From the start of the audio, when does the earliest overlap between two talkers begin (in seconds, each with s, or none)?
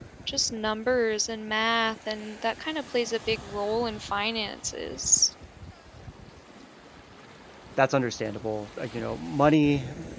none